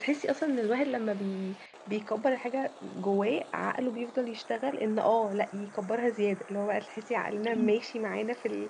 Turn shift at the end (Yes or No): No